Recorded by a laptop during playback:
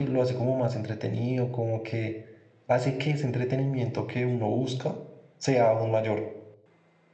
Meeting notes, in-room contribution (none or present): present